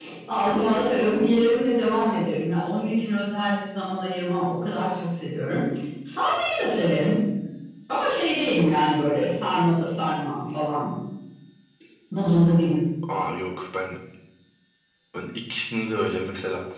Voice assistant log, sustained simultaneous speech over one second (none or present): none